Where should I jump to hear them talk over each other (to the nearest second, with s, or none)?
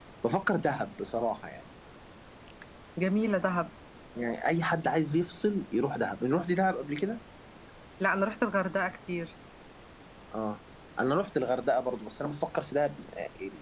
none